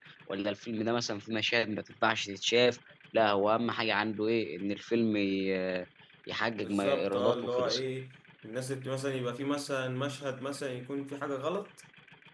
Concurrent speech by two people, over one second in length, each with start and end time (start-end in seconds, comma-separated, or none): 6.6-7.8